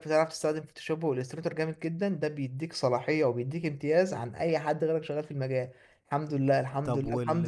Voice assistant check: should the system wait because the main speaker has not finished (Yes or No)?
Yes